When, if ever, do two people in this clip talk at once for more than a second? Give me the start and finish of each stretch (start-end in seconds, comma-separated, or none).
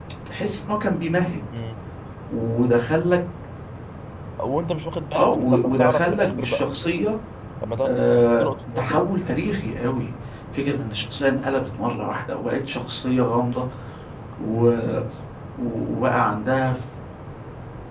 5.1-6.6